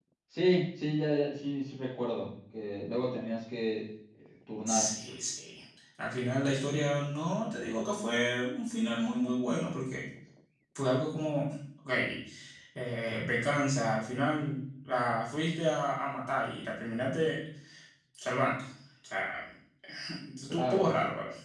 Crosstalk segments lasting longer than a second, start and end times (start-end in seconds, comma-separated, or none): none